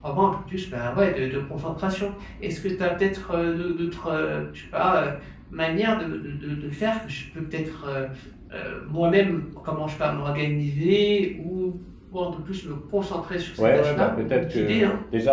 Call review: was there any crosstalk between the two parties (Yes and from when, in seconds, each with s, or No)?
Yes, from 13.6 s